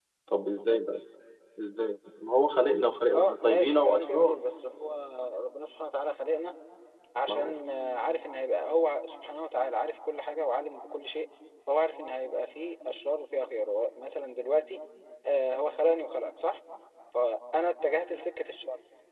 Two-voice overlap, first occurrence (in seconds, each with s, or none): 3.1 s